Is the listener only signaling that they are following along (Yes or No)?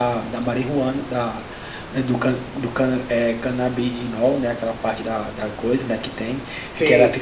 Yes